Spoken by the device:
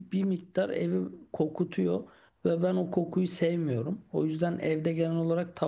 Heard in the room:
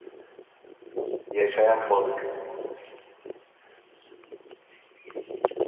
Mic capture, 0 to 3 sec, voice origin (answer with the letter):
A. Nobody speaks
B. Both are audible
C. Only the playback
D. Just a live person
D